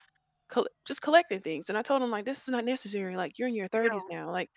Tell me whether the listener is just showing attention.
Yes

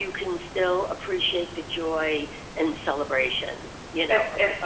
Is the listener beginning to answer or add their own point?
Yes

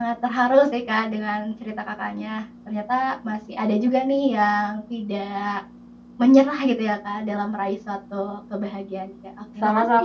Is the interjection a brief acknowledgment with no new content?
No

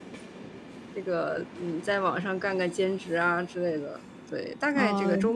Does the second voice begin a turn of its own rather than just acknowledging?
Yes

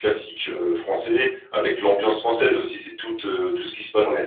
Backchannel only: Yes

